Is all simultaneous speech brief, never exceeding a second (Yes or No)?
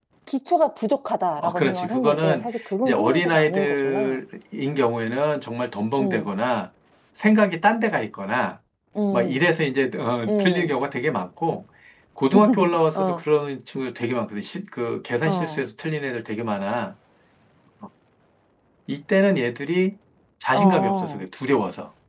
No